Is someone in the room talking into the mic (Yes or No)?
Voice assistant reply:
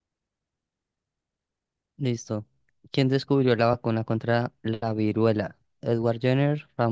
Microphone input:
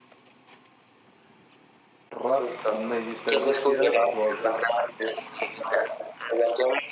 Yes